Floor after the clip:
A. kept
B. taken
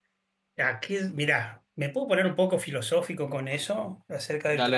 A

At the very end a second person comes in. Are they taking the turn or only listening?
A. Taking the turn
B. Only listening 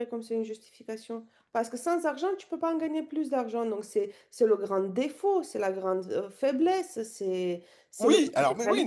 A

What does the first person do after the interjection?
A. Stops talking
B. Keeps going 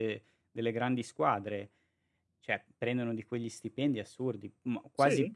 B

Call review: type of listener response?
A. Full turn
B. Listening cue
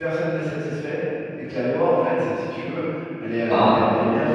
B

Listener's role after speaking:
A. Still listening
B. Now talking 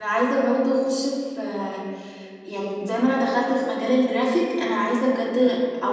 A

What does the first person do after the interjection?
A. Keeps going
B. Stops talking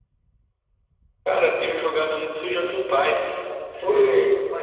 B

